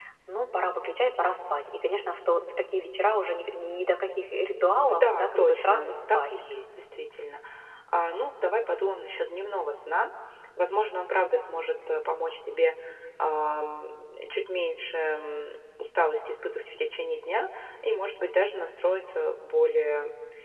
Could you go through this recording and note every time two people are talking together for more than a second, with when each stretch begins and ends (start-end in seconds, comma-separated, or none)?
4.9-6.3